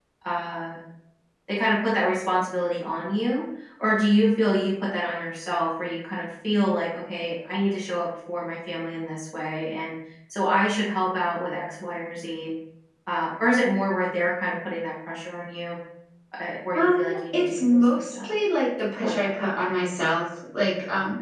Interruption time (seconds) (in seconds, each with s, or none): 16.8 s